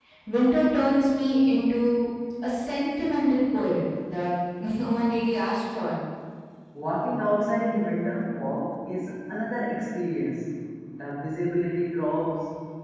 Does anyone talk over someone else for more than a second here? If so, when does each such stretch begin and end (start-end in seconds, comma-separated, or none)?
none